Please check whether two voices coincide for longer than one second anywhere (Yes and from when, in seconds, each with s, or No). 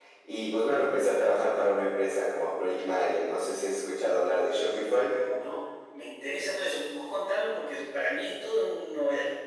No